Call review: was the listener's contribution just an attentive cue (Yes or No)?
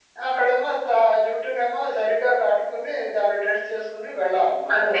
No